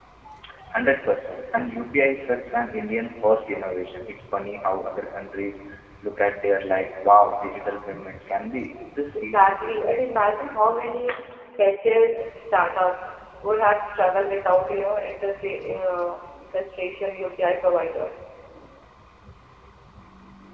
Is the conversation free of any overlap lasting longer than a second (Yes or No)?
Yes